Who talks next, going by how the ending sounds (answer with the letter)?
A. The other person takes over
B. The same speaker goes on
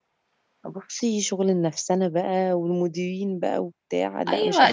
A